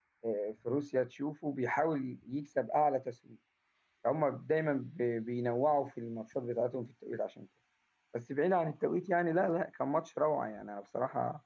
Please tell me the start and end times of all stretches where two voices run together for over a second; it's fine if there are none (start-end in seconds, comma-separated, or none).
none